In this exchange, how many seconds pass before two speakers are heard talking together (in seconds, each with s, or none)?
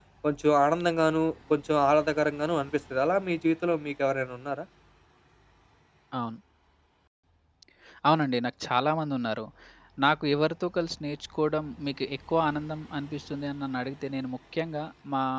none